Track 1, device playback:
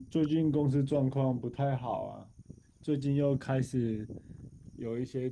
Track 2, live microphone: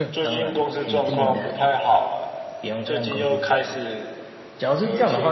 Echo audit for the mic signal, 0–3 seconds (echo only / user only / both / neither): both